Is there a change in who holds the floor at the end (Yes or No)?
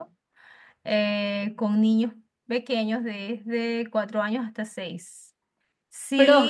No